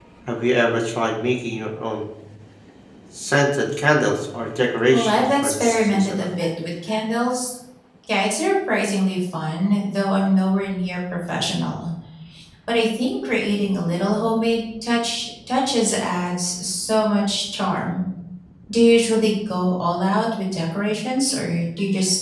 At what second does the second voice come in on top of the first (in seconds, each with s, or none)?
4.9 s